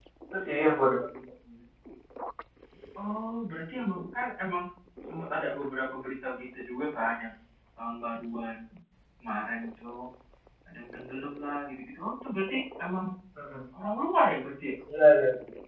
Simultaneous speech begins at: none

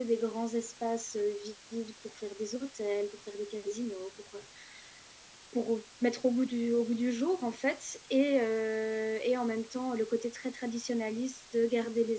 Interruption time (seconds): none

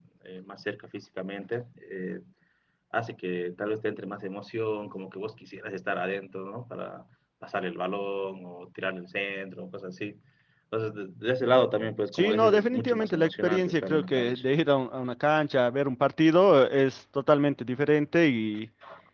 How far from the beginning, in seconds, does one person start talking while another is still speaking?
12 s

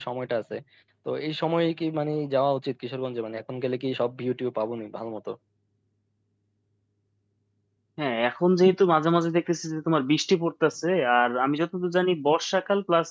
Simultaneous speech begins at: none

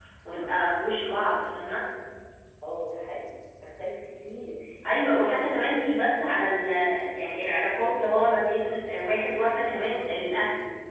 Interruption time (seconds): none

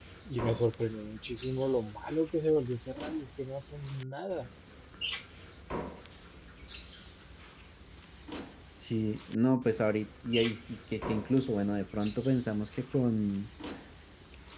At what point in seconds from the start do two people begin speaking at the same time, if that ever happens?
none

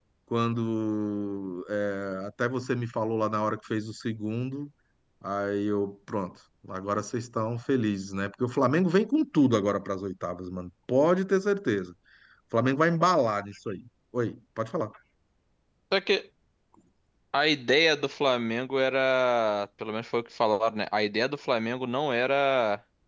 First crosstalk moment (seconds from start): none

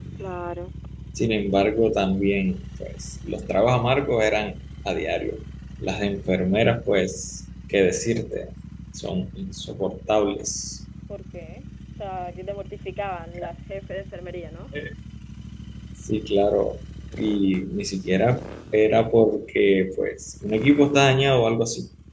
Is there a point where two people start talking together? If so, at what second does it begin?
none

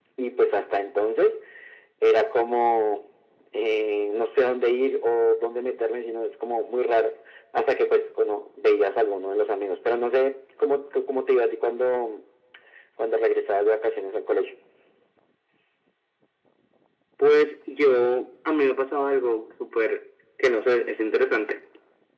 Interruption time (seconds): none

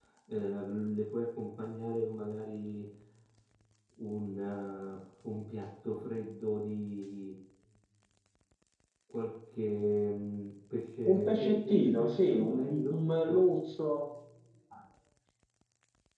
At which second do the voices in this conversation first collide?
11 s

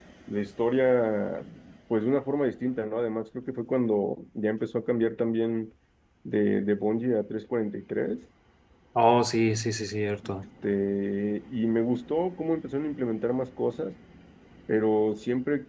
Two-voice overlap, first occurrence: none

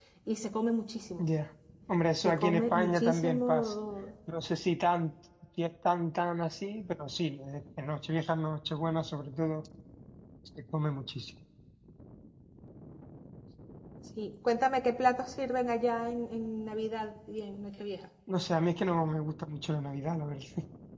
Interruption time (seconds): 2 s

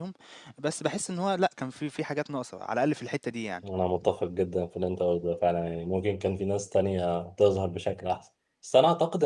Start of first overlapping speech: none

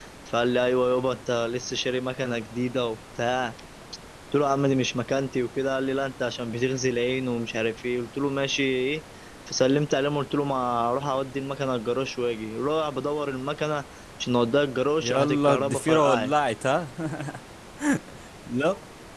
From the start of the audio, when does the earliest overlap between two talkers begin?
15 s

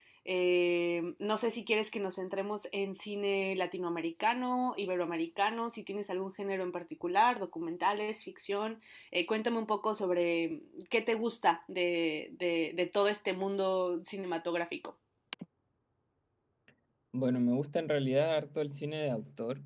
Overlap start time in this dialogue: none

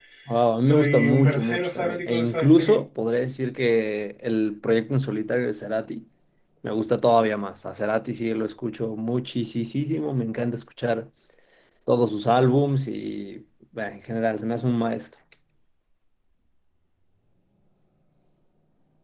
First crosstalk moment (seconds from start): 1 s

